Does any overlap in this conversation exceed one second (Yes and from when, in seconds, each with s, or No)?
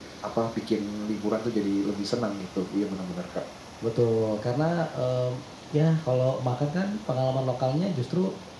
No